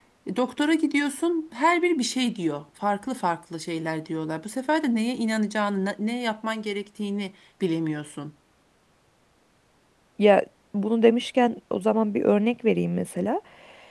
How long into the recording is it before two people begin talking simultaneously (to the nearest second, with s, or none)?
none